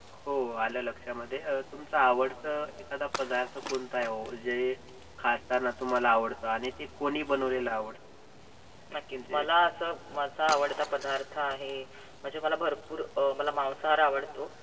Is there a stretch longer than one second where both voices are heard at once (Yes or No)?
No